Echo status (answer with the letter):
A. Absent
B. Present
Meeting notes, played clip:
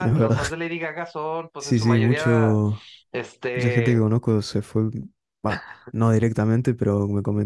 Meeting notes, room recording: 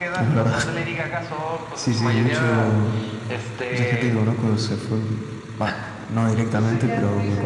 B